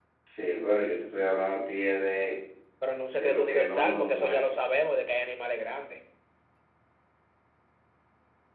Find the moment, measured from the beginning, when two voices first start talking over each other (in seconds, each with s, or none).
3.1 s